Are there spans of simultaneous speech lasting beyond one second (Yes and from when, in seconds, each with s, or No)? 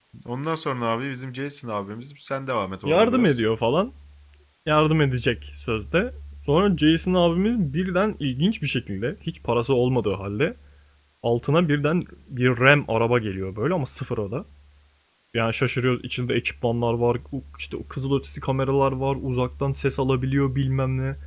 No